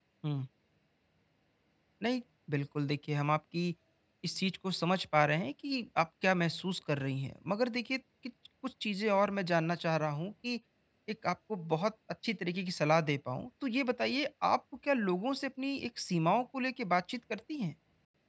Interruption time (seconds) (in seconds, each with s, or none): none